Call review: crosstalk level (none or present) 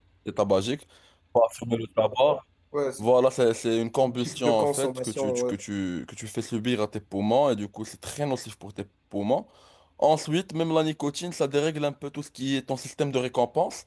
present